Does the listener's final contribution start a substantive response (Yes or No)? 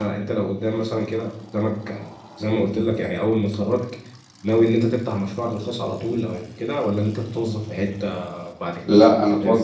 Yes